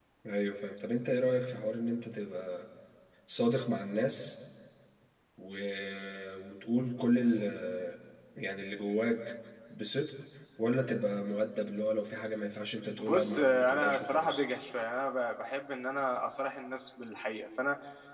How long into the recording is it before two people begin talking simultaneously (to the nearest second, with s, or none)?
13 s